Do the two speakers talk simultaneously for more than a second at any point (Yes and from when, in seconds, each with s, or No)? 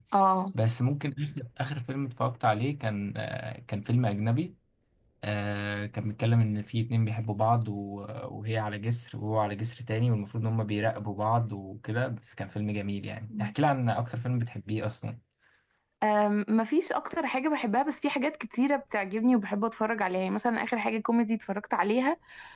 No